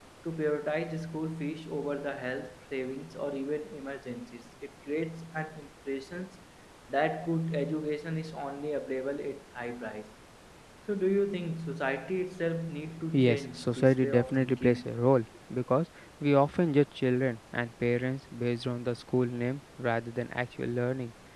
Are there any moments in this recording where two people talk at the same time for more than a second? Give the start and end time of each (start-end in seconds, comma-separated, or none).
13.2-14.9